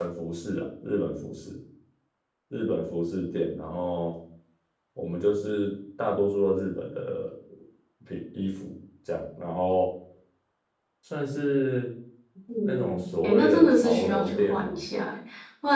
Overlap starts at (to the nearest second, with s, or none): 13 s